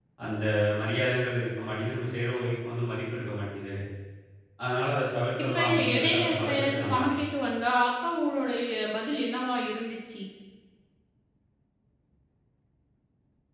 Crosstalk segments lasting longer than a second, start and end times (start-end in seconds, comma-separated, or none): 5.4-7.2